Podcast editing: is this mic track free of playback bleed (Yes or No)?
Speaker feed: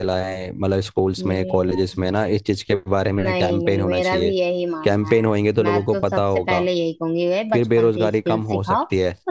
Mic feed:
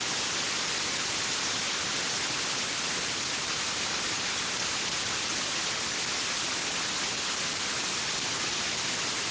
Yes